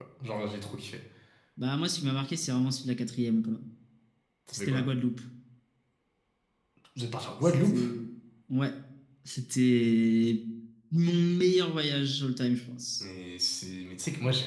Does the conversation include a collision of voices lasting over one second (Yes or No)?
No